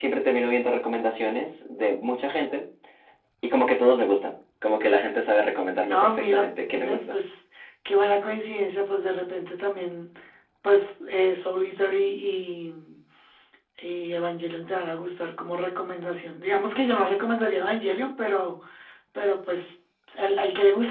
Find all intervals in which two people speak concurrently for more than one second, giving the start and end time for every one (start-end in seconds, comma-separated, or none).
5.9-7.2